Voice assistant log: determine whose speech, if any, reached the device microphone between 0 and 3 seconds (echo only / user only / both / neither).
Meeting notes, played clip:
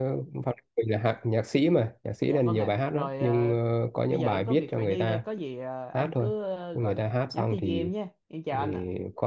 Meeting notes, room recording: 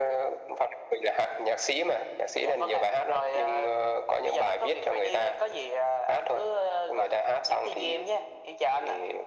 echo only